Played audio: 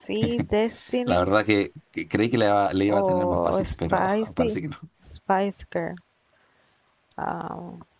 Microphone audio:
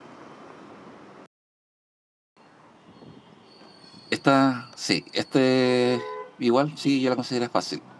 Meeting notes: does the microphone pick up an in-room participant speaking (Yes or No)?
Yes